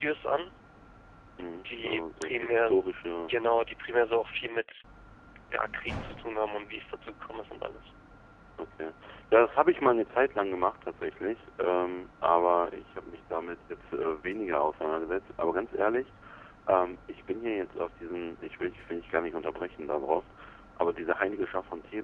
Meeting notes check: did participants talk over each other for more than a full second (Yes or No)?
Yes